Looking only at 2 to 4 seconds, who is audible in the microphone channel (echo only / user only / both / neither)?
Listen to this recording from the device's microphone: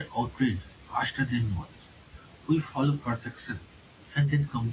user only